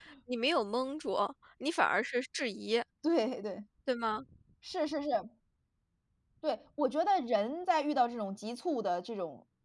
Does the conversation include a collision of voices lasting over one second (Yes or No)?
No